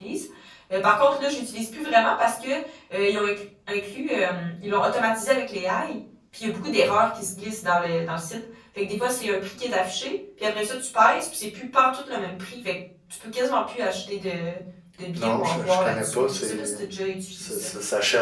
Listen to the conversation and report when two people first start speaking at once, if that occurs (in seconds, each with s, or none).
15.2 s